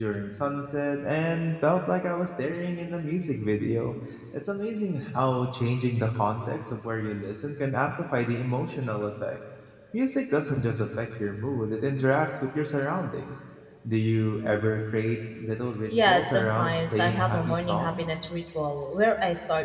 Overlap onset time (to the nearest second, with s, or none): 16 s